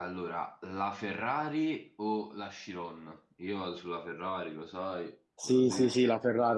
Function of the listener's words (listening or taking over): taking over